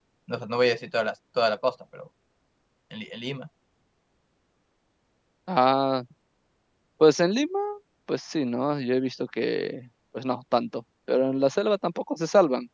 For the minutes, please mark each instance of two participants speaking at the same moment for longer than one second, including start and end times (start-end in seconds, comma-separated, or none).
none